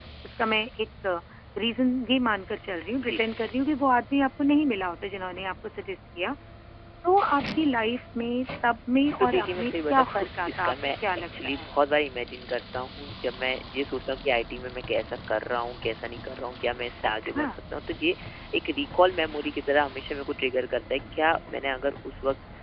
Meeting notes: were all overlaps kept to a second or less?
No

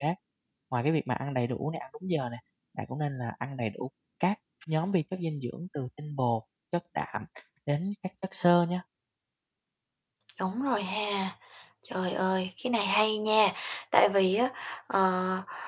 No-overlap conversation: Yes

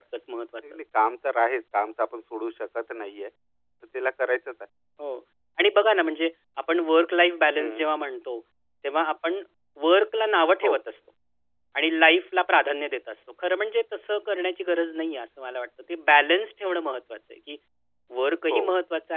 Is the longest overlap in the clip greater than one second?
No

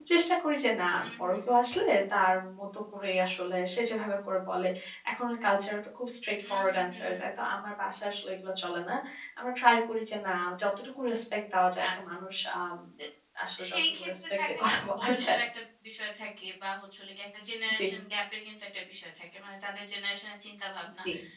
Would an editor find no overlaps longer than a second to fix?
No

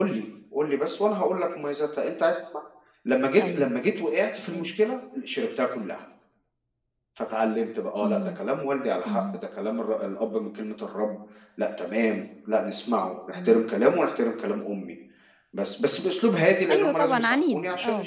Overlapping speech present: Yes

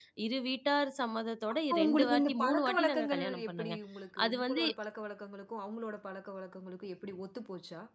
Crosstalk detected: Yes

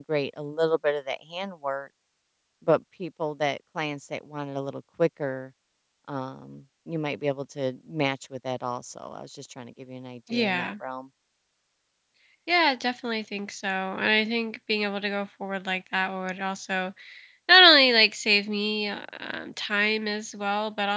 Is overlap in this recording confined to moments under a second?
Yes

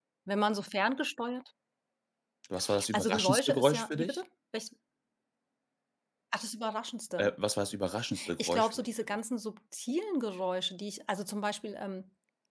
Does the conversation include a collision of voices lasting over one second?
Yes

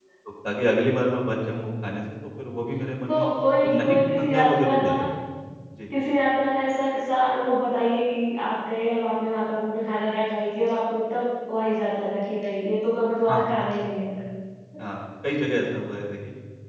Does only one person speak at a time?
No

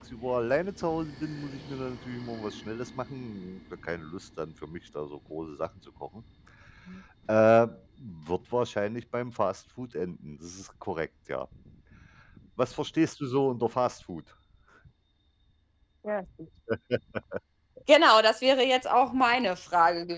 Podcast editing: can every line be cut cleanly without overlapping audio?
Yes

